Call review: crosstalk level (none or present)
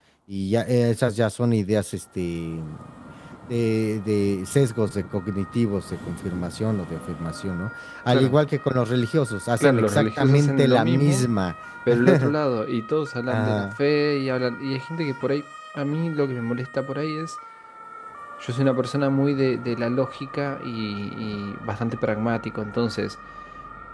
present